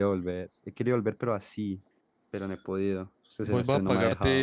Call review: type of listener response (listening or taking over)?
taking over